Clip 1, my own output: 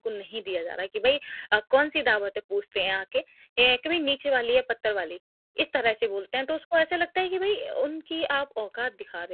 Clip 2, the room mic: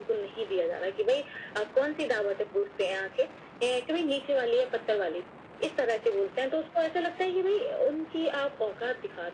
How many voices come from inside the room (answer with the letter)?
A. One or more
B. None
B